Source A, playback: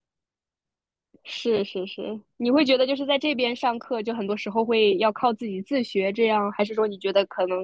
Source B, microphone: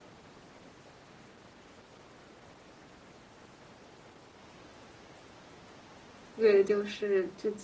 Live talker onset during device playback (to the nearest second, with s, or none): 6 s